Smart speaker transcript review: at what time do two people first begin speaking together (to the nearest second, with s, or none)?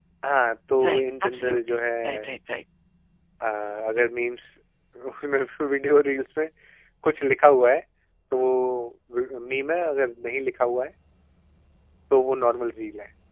1 s